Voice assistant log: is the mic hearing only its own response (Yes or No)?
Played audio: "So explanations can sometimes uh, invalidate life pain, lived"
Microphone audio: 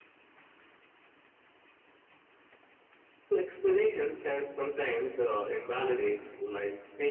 Yes